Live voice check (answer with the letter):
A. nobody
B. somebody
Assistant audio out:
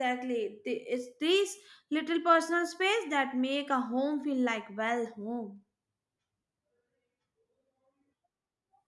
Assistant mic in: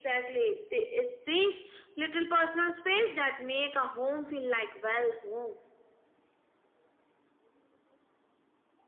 A